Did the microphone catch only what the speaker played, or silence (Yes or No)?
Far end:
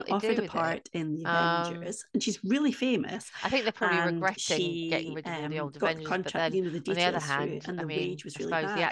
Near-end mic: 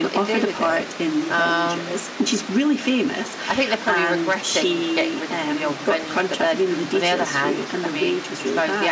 Yes